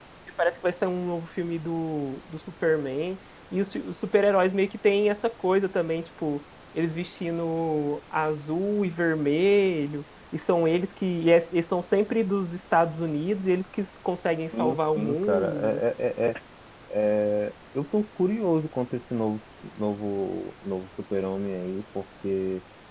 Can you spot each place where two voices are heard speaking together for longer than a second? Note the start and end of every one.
14.6-15.8

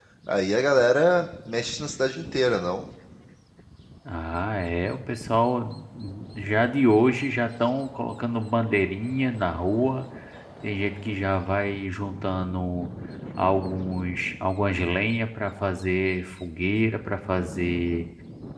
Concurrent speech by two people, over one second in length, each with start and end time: none

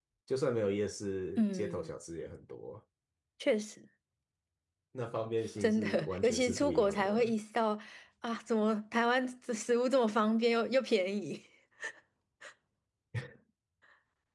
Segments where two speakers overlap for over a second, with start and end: 5.6-7.3

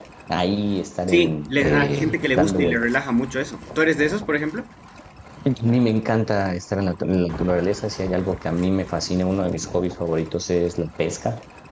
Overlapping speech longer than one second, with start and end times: 1.1-2.8

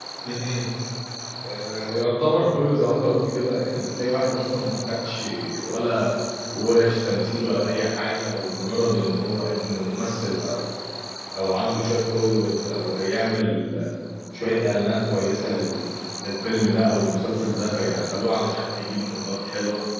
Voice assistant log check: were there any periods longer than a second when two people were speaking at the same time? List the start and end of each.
none

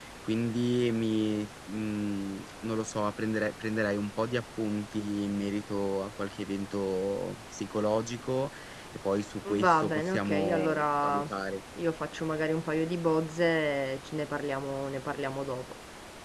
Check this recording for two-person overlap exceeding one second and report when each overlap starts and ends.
9.6-11.2

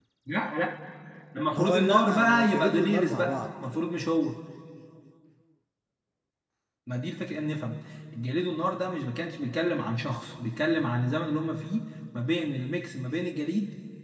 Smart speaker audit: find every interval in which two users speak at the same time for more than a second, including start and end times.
1.5-3.3

